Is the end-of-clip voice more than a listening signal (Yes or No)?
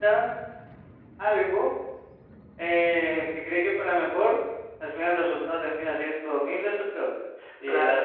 No